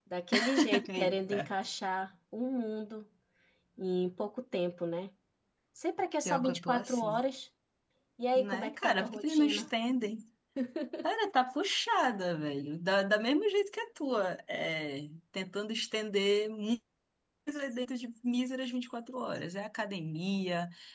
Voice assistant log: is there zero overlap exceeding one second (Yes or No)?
No